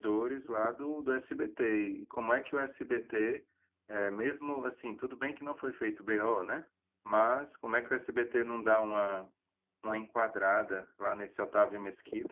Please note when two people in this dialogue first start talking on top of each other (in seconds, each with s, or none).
none